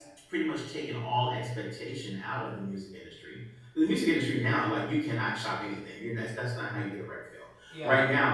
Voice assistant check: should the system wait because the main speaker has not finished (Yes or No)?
Yes